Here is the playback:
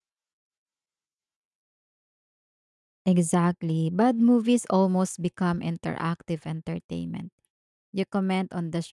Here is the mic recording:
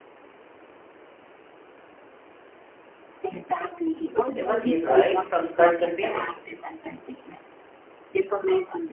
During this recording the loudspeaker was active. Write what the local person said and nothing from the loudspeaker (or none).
it was a ride from start to finish